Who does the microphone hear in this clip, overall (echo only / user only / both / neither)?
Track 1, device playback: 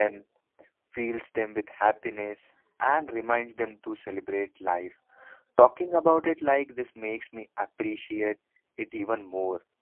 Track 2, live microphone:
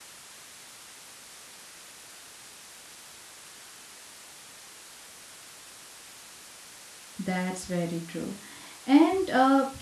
user only